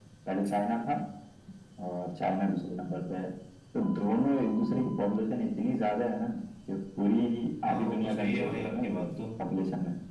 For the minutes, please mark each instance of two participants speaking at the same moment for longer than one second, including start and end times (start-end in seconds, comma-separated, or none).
7.7-9.2